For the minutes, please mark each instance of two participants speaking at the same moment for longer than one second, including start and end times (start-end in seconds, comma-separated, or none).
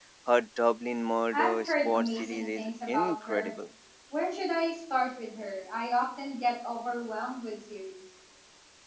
1.3-3.5